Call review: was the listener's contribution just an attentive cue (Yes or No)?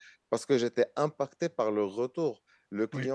Yes